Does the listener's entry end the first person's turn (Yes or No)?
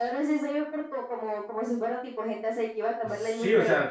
Yes